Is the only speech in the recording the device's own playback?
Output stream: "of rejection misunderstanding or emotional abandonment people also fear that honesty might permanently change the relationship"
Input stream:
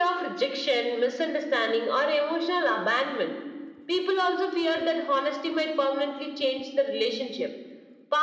Yes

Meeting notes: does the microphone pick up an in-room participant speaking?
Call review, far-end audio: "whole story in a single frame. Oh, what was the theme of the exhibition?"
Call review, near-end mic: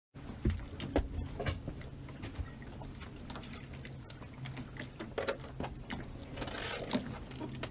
No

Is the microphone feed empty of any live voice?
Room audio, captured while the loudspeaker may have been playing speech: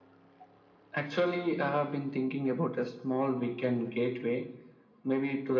Yes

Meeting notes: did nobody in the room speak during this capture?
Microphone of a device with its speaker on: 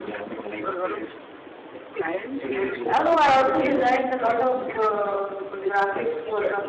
No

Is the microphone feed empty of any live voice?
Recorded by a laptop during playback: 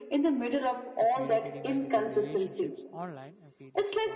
No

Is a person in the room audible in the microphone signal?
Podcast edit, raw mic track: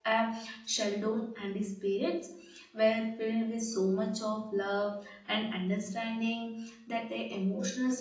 Yes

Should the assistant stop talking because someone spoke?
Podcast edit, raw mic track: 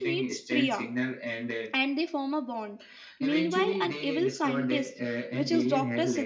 Yes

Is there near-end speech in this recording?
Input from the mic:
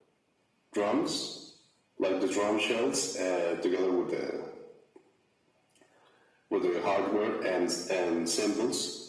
No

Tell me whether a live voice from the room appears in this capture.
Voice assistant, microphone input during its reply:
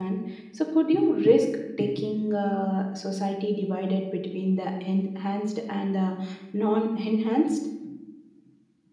Yes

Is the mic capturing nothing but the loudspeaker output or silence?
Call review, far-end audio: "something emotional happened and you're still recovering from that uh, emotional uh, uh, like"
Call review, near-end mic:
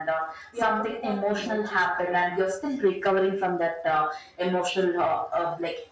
No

